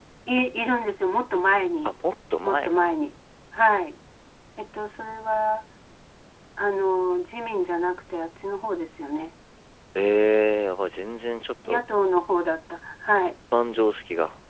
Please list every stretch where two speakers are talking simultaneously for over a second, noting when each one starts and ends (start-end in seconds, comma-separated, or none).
none